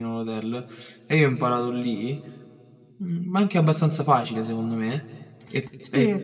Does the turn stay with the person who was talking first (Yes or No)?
Yes